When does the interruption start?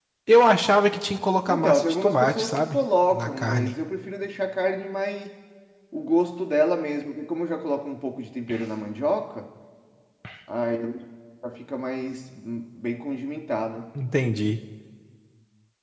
1.5 s

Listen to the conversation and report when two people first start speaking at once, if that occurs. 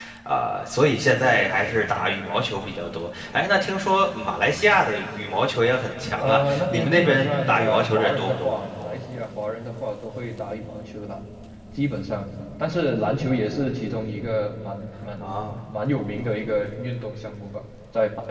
6.2 s

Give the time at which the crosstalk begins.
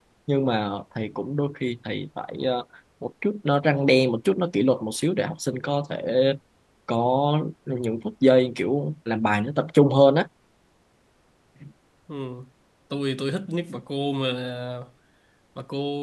none

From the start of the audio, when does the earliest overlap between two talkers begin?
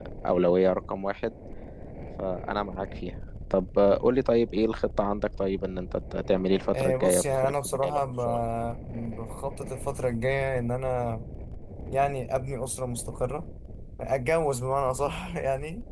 6.7 s

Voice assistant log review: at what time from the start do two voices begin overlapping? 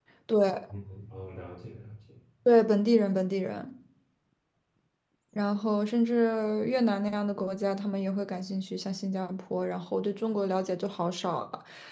none

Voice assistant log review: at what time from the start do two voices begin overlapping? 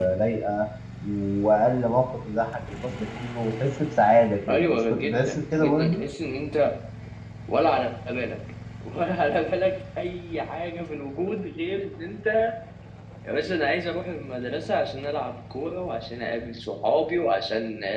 4.4 s

